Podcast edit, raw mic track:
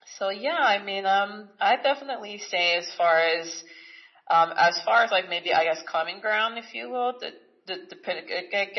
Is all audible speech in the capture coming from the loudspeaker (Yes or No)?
Yes